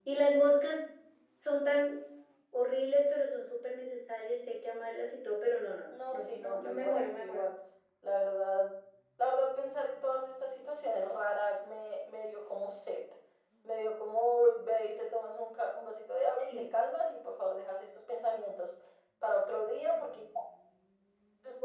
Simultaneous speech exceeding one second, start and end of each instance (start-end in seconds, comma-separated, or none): 5.9-7.4